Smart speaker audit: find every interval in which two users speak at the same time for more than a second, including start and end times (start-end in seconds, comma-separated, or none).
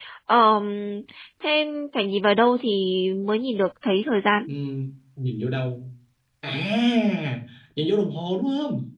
none